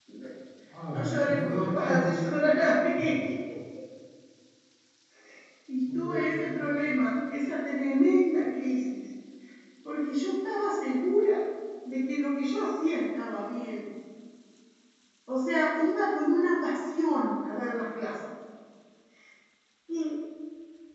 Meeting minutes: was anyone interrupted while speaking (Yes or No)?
Yes